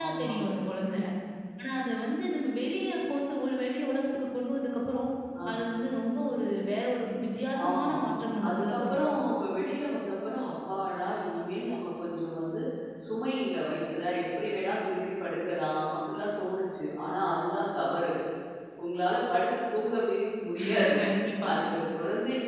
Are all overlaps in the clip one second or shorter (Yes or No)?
Yes